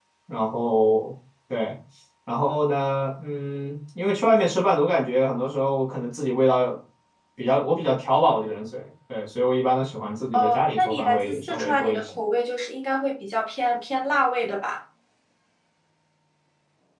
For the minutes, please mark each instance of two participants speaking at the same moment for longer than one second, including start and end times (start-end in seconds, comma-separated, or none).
10.3-12.1